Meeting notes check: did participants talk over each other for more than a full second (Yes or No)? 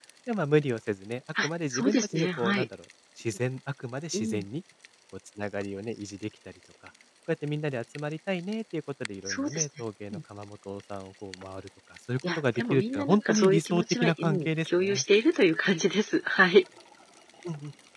Yes